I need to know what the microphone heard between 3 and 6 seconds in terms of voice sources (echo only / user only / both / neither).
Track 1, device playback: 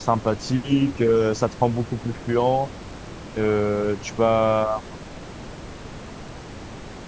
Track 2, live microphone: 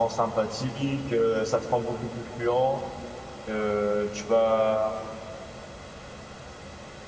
echo only